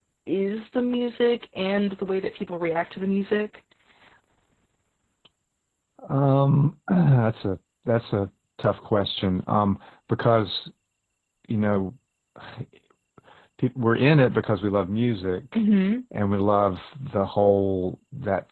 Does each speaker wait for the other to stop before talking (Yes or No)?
Yes